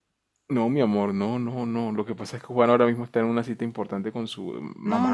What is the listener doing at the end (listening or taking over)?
taking over